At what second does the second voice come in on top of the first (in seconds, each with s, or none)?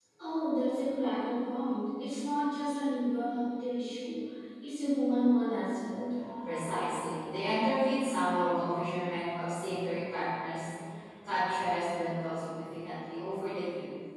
none